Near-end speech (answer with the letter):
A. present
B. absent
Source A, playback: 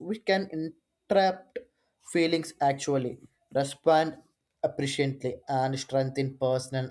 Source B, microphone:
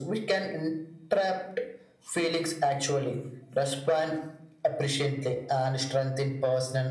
B